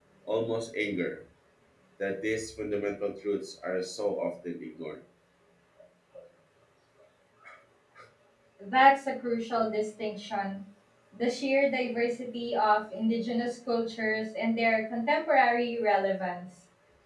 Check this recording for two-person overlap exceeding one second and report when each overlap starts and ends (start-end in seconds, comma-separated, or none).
none